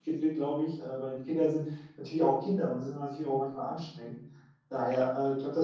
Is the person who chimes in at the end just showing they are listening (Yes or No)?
Yes